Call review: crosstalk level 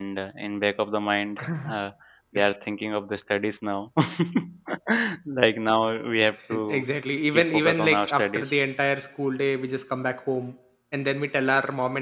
present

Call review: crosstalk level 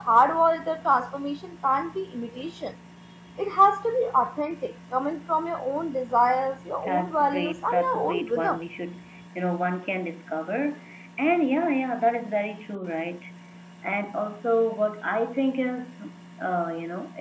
present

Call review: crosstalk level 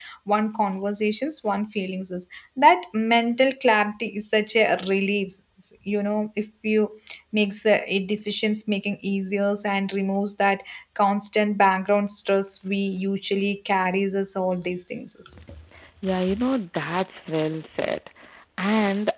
none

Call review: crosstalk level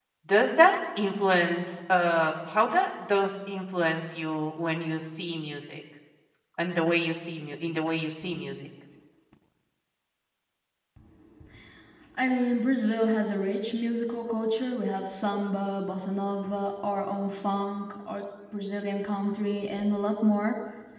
none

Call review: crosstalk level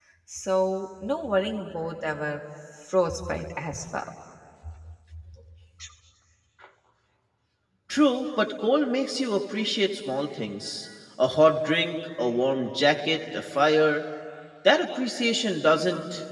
none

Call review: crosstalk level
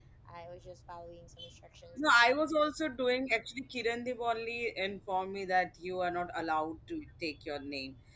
none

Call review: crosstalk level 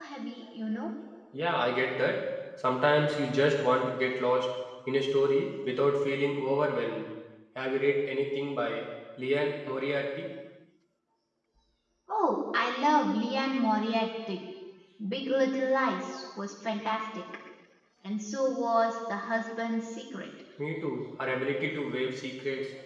none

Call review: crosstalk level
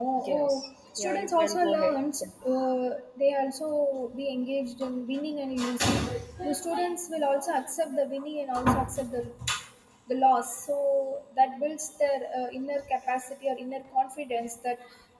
present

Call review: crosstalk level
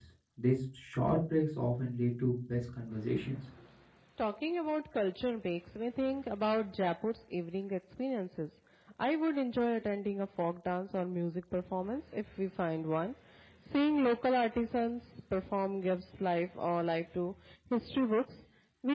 none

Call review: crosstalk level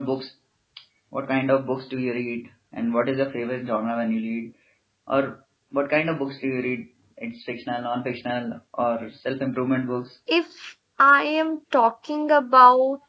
none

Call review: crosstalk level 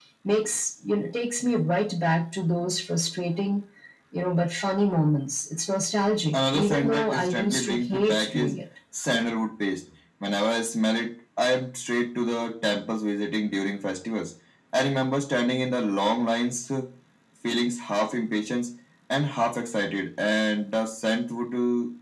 present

